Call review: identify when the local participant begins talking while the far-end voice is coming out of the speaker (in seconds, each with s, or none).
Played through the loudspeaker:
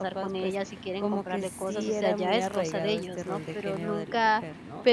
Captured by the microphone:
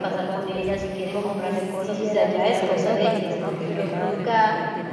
2.5 s